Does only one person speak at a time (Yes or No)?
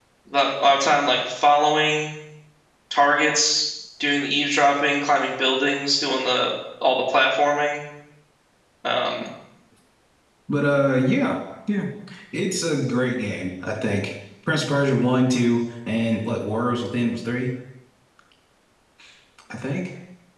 Yes